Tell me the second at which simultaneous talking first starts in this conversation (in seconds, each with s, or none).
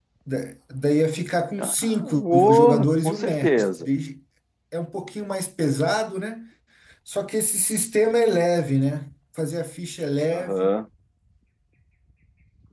1.6 s